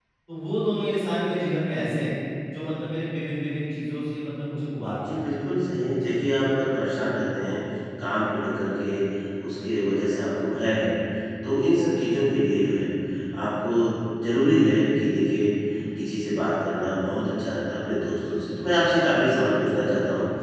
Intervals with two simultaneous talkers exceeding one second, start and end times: none

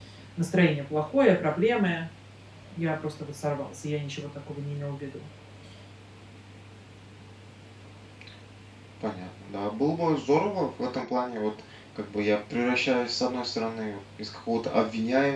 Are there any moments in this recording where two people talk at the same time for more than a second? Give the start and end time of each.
none

